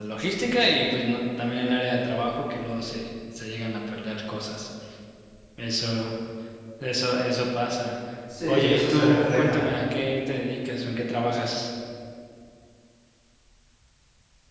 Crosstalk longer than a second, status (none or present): present